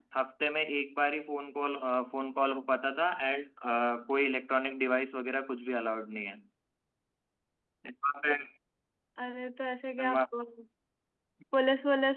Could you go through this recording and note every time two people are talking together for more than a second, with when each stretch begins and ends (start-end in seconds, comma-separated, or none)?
none